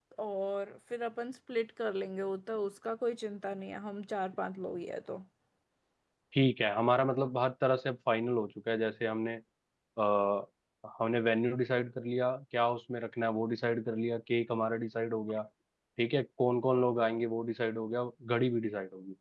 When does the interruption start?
none

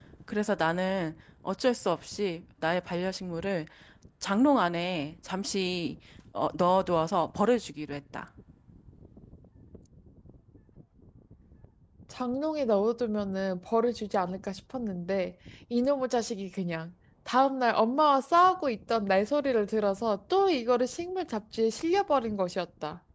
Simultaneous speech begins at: none

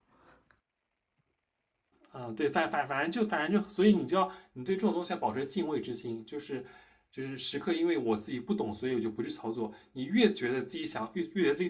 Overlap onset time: none

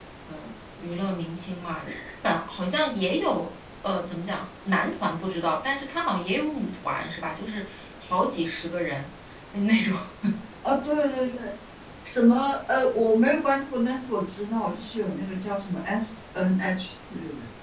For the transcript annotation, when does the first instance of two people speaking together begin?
none

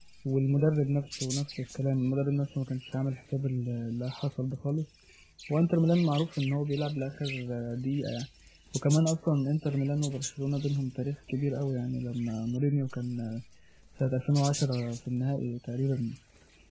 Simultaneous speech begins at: none

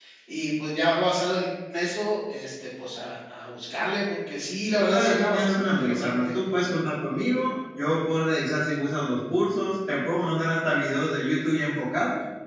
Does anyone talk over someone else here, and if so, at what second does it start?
4.8 s

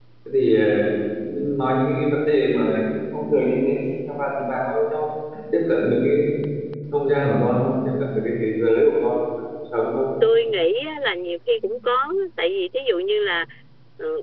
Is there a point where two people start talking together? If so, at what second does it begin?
none

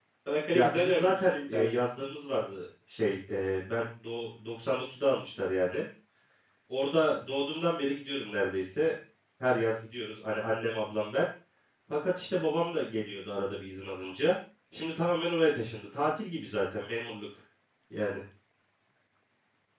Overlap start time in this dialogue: 0.5 s

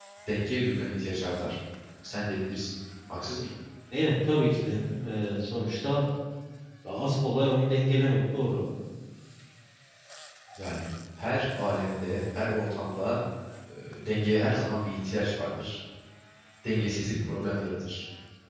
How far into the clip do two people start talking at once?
none

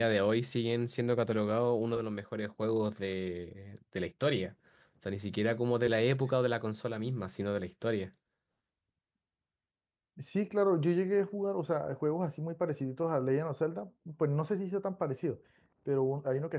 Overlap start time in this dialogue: none

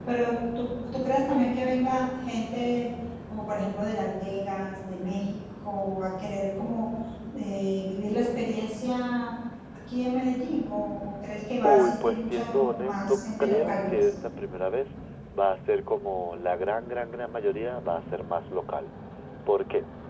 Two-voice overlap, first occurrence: 11.6 s

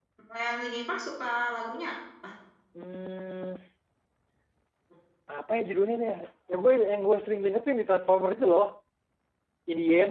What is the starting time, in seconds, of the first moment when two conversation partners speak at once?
none

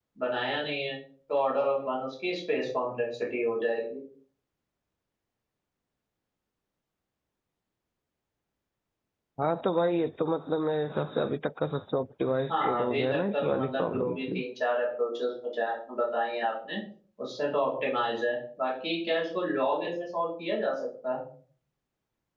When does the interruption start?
12.5 s

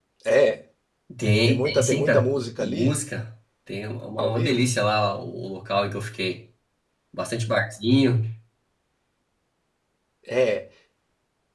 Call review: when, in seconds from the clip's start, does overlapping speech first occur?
1.5 s

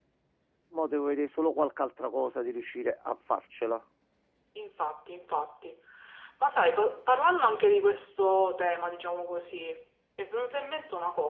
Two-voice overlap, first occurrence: none

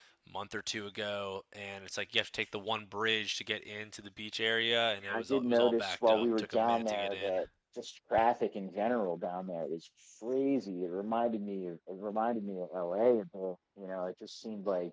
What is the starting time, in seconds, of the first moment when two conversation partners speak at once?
5.0 s

